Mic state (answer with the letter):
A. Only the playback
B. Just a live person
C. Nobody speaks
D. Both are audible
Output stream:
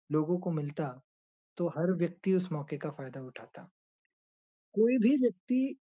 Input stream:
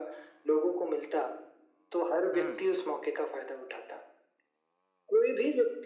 D